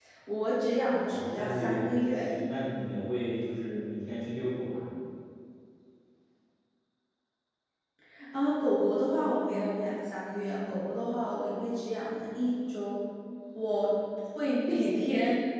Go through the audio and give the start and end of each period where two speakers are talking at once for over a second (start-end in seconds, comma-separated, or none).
1.0-2.3